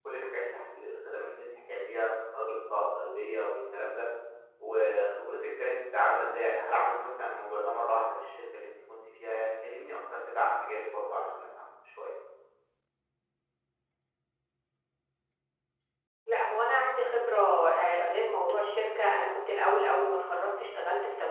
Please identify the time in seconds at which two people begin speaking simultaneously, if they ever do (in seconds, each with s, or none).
none